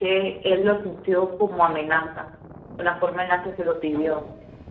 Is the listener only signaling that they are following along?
No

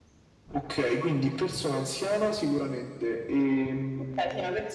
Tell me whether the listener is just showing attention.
No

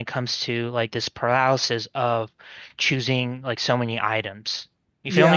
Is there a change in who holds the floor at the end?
Yes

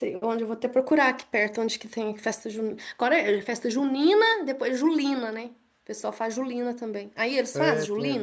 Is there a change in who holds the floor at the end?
Yes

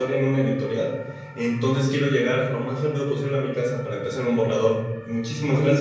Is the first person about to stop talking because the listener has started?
Yes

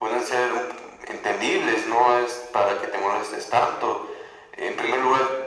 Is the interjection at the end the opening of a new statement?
No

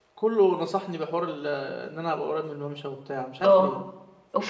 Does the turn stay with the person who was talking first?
No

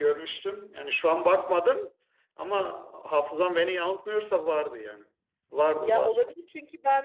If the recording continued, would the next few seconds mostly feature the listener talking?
Yes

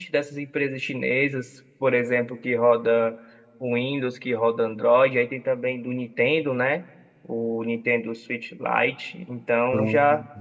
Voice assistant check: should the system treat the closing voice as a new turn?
No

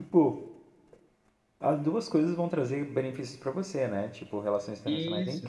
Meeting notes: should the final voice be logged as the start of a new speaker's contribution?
No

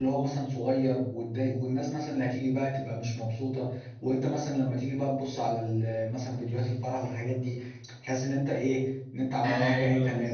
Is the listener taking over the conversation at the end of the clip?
Yes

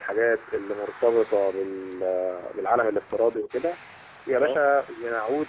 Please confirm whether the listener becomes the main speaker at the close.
No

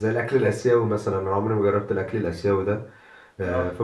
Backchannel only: Yes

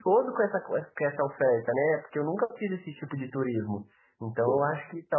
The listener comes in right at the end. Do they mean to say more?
No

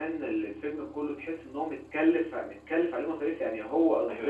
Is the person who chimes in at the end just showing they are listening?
No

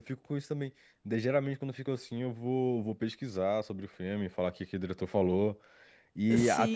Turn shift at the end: No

